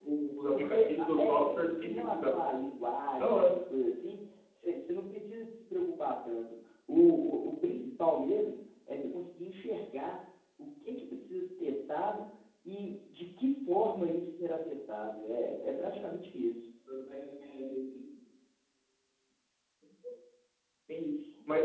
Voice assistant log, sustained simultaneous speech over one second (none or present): present